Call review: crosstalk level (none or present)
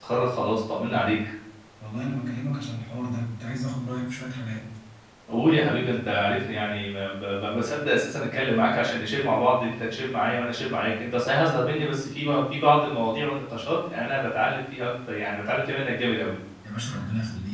none